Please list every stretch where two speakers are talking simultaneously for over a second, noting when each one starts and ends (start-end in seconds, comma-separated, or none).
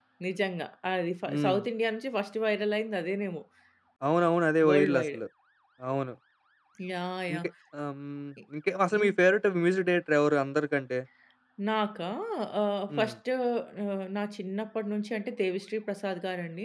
none